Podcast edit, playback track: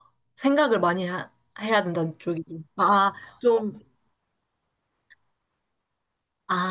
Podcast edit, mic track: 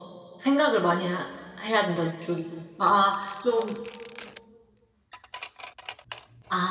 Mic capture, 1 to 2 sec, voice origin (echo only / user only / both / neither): echo only